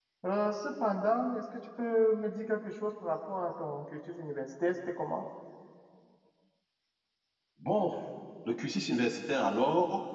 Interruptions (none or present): none